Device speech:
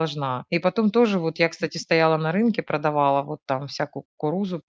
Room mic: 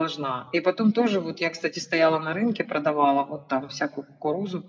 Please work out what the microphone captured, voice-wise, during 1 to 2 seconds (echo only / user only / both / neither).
echo only